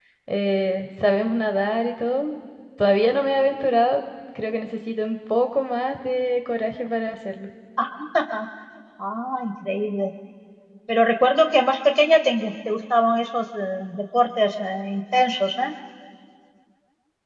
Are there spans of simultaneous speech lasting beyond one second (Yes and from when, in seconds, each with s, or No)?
No